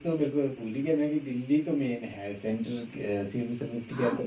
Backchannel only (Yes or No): No